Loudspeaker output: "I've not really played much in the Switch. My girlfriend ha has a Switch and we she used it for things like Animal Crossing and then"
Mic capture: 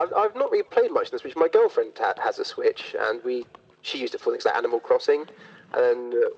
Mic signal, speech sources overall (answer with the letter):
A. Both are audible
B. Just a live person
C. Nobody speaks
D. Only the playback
D